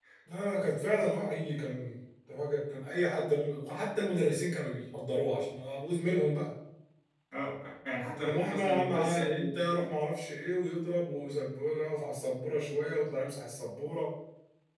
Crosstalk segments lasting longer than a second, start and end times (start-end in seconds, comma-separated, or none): 8.2-9.5